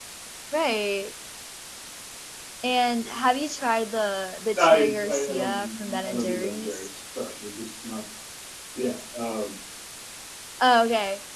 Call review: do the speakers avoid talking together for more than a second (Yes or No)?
No